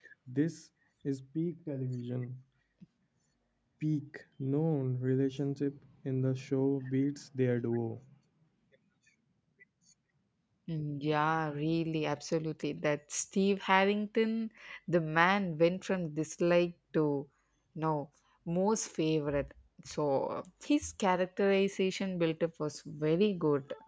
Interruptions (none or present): none